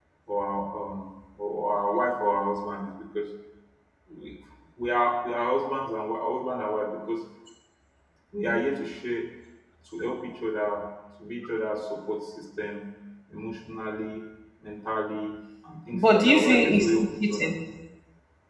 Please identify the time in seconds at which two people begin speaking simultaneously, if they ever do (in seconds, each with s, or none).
15.9 s